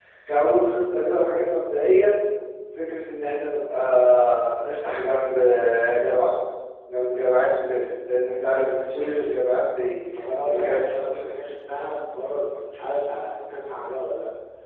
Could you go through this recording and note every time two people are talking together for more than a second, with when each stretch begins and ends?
none

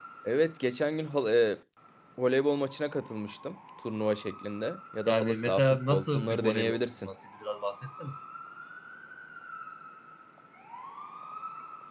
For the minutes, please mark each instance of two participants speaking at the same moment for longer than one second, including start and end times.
5.1-7.1

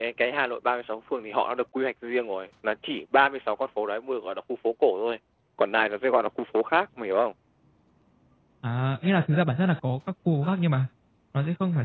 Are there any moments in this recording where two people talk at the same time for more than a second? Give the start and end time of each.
none

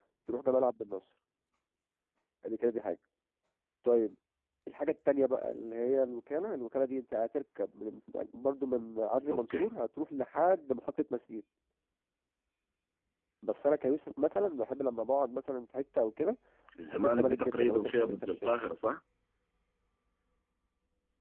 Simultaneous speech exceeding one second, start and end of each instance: 16.8-18.5

